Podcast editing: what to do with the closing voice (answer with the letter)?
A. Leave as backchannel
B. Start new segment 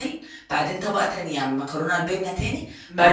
B